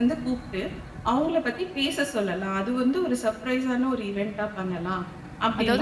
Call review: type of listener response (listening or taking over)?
taking over